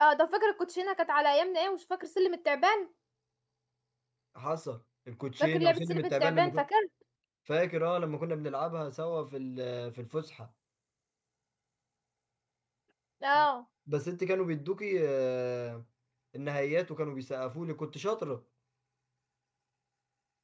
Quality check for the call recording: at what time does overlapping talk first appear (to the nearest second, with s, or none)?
5 s